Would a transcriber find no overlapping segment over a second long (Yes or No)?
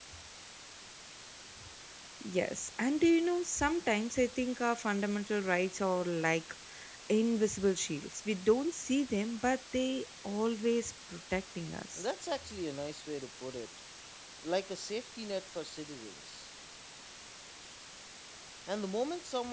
Yes